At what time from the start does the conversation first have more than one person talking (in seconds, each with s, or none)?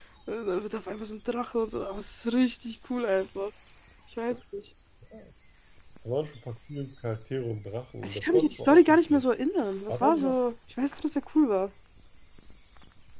8.0 s